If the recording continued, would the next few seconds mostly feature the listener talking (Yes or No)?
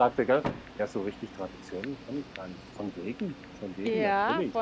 Yes